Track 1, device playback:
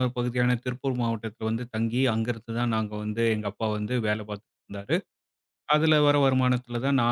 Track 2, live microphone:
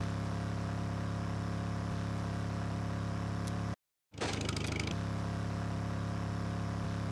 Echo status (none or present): none